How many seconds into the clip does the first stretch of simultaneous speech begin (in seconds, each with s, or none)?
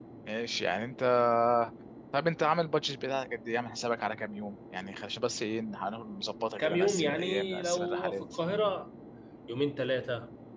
6.6 s